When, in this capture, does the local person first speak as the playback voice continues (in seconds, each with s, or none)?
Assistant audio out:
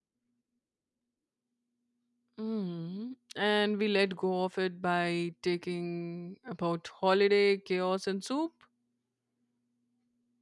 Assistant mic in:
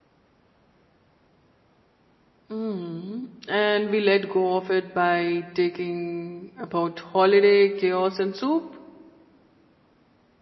none